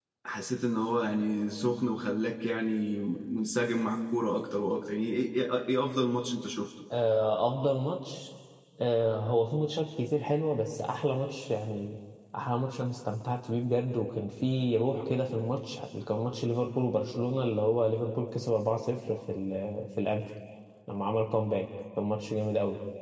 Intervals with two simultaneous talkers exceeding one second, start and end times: none

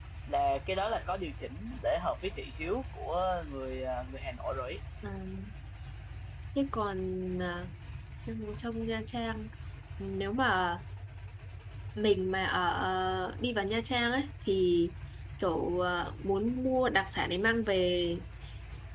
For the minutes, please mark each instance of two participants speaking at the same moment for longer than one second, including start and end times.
none

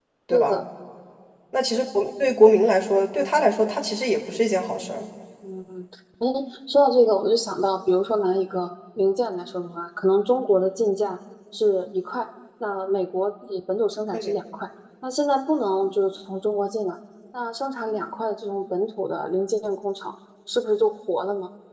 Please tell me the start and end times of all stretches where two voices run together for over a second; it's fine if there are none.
none

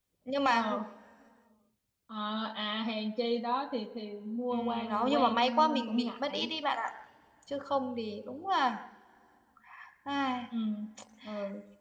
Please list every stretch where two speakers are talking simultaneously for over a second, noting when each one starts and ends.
4.5-6.4

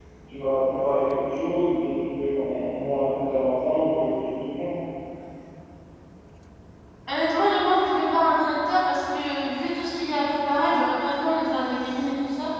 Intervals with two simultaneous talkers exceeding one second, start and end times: none

